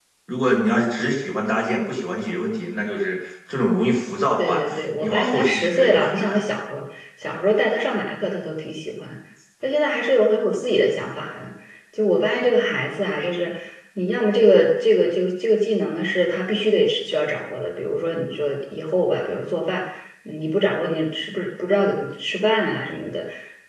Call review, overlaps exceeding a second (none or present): present